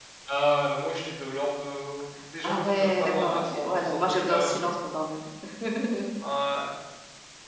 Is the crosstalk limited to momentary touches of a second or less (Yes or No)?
No